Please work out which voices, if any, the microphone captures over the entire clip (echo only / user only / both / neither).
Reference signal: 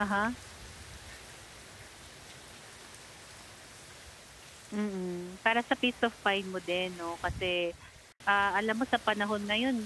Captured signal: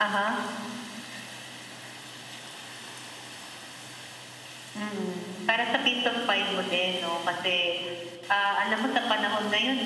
echo only